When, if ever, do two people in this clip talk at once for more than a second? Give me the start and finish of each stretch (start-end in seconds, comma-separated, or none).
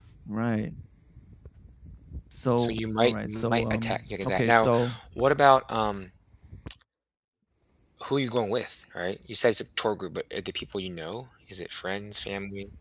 2.5-4.7